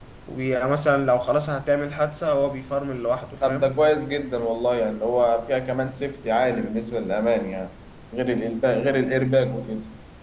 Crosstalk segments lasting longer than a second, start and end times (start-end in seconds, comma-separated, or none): none